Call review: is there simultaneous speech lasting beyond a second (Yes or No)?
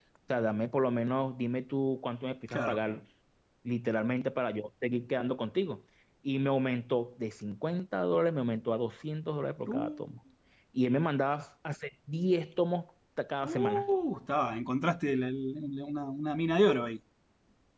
No